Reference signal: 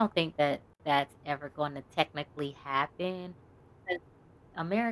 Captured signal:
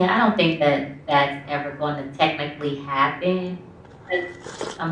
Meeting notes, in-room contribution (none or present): none